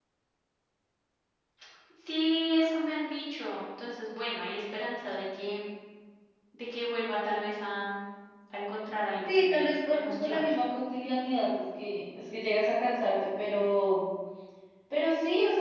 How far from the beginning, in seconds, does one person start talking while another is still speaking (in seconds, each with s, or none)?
9.3 s